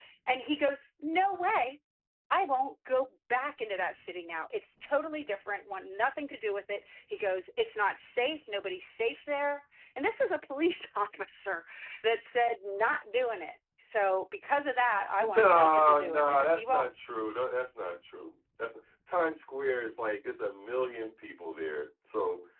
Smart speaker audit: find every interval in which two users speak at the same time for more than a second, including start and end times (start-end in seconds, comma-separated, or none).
15.2-16.9